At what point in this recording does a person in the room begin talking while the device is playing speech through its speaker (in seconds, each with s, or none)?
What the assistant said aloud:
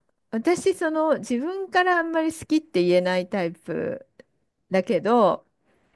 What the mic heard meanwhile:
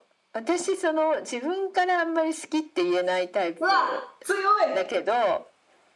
3.6 s